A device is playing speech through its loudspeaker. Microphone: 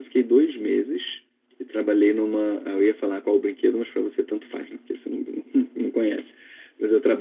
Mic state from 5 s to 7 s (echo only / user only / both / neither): user only